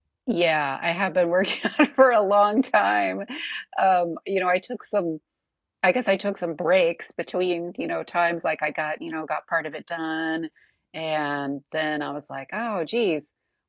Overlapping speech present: No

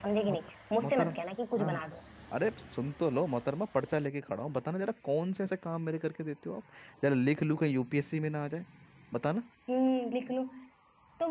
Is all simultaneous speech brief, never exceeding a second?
Yes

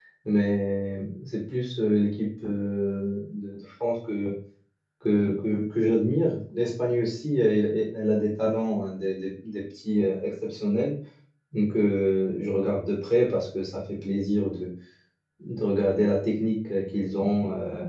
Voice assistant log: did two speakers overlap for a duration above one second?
No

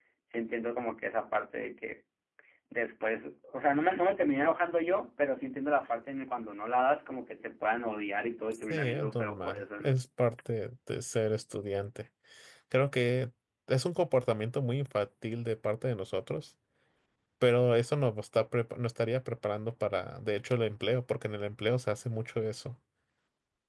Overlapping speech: Yes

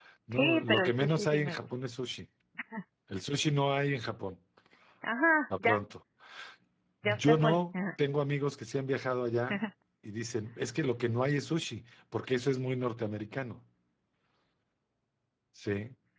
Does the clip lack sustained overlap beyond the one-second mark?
No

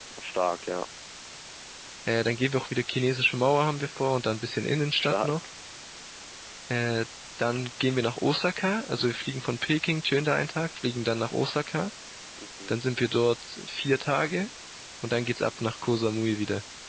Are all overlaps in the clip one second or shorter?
Yes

